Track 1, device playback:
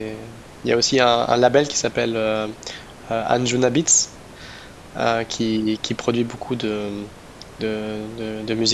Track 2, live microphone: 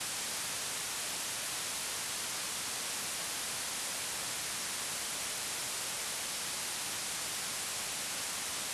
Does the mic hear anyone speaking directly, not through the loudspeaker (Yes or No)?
No